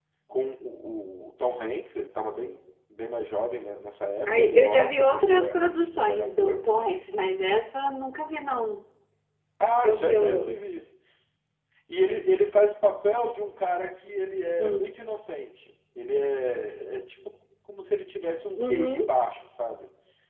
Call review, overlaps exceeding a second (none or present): present